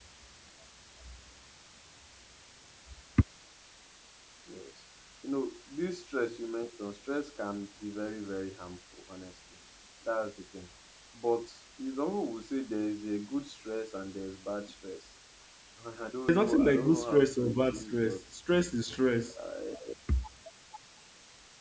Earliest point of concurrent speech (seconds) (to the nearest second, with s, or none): 16 s